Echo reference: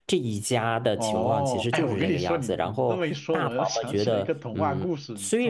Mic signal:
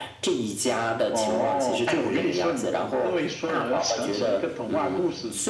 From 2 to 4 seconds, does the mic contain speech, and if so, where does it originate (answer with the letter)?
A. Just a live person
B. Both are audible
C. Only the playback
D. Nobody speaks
C